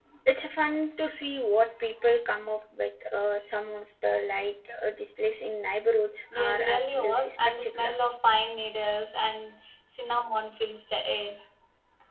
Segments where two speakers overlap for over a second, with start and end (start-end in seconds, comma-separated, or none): 6.3-8.0